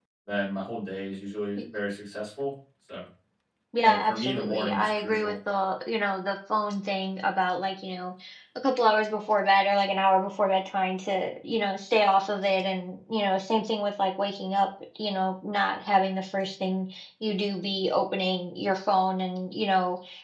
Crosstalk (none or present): present